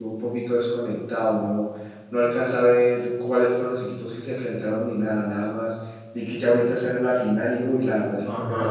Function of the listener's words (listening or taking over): taking over